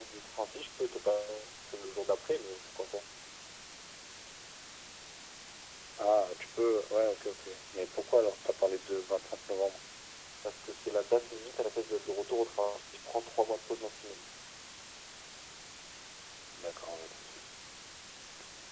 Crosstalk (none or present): none